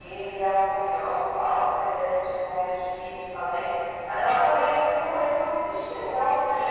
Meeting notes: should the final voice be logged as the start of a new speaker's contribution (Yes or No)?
Yes